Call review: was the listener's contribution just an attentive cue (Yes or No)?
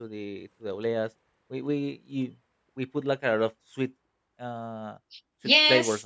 No